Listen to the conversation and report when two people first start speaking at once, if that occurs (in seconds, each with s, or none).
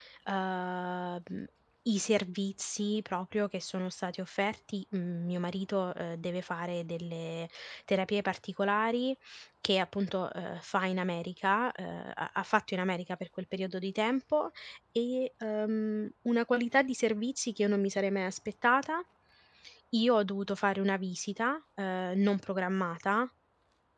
none